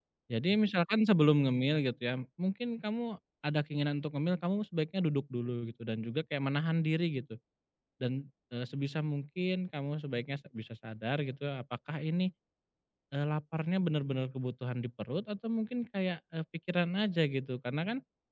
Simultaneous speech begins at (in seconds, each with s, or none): none